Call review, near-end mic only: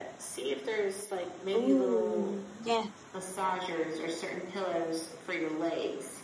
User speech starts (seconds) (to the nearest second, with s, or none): 2 s